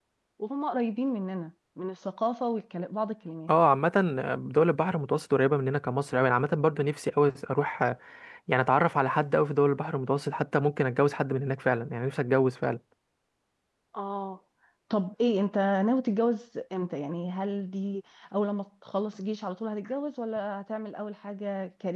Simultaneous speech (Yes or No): No